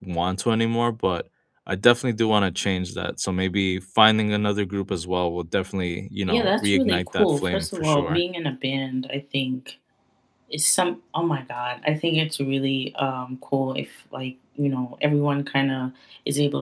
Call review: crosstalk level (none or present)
present